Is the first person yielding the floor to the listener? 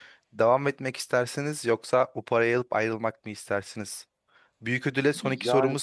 No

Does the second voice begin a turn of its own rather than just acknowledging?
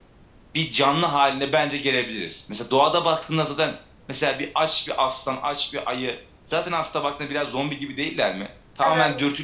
No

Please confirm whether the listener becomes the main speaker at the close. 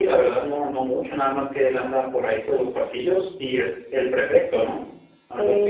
Yes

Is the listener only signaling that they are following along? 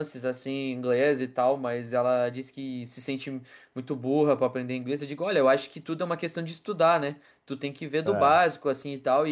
Yes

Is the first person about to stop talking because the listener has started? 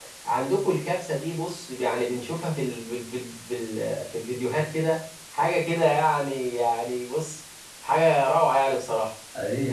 Yes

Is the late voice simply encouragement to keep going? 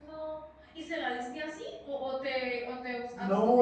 No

